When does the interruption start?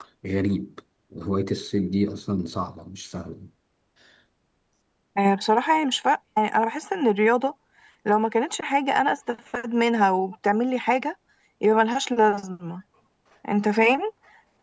none

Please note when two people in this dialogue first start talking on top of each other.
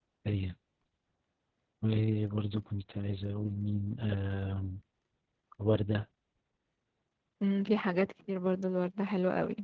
none

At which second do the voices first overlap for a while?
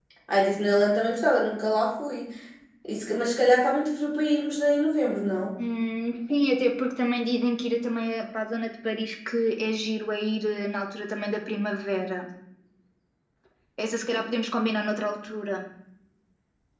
none

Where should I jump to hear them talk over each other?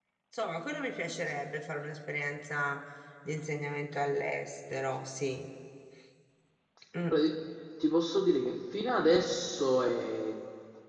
none

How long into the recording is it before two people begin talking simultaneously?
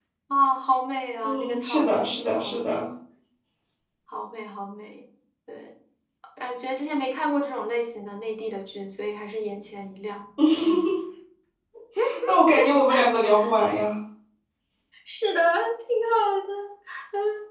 1 s

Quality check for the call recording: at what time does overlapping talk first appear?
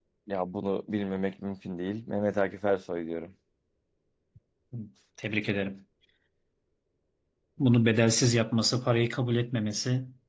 none

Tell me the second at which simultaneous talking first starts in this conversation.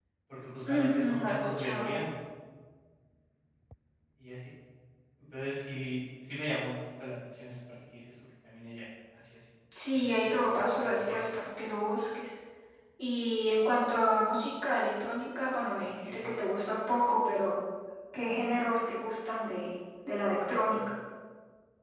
1 s

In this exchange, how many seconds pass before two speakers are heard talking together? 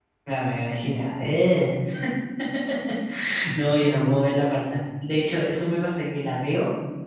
none

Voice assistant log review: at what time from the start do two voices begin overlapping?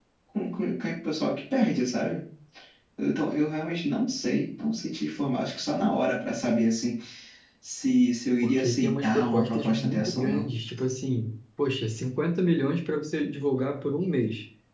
8 s

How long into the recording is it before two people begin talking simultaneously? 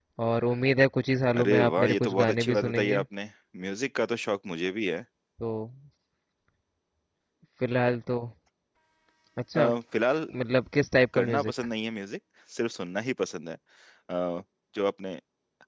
1 s

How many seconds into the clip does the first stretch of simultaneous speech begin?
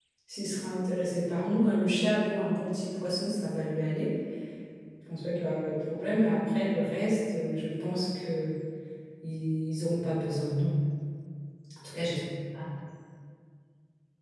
none

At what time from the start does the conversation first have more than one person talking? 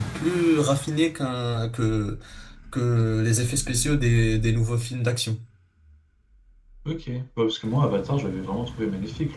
none

